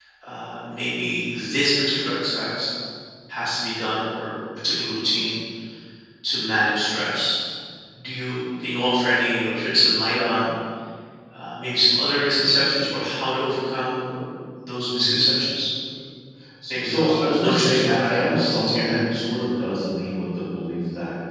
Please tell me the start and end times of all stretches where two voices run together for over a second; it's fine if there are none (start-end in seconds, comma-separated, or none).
16.7-19.0